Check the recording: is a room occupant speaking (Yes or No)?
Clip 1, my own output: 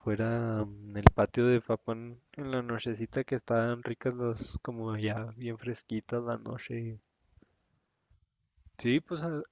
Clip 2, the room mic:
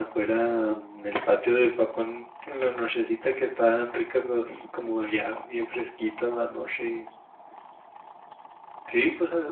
No